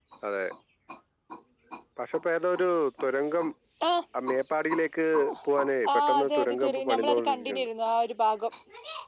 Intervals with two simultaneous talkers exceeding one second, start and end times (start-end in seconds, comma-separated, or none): 5.9-7.7